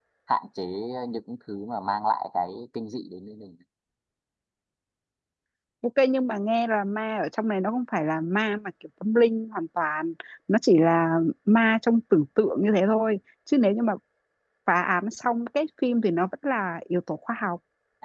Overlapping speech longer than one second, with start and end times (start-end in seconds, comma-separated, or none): none